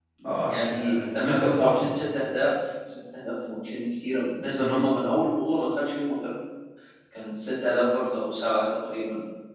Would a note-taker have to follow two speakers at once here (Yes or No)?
Yes